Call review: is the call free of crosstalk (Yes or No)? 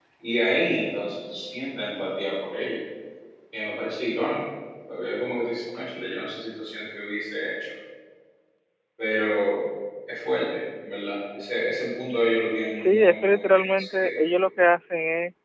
No